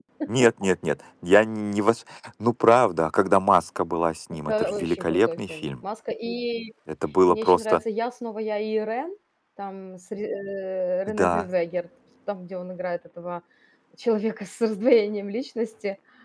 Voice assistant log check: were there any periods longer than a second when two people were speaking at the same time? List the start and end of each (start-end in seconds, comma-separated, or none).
4.5-5.7